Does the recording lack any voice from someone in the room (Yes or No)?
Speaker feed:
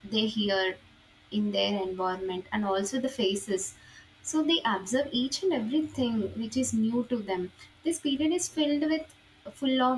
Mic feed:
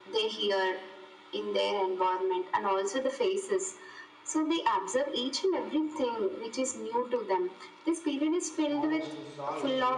No